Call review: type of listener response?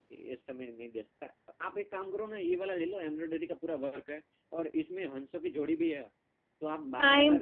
listening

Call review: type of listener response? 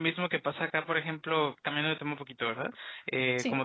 listening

